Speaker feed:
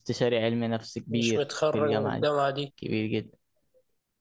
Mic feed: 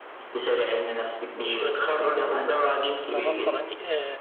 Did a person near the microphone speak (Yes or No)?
Yes